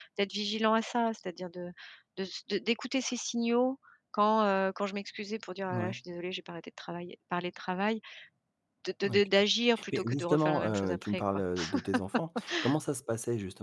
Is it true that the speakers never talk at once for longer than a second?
No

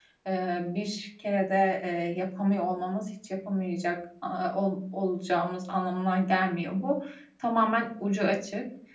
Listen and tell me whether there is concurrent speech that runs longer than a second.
No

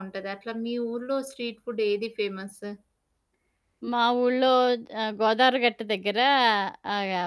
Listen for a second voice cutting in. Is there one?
No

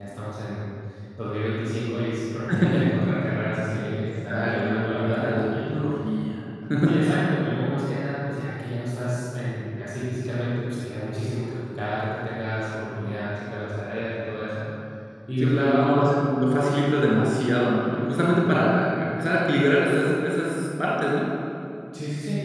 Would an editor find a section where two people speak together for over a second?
Yes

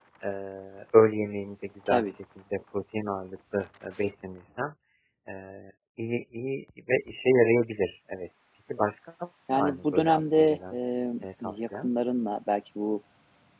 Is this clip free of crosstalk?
No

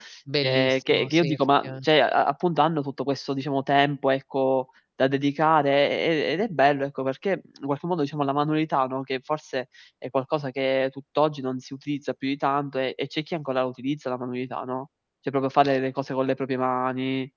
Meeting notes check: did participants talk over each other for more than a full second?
Yes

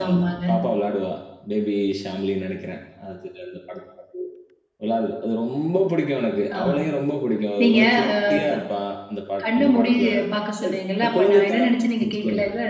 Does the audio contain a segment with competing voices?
Yes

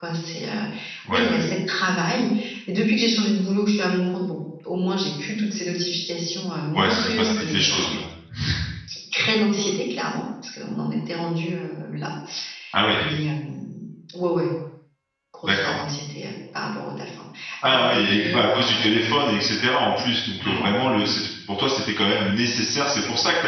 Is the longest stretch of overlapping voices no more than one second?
No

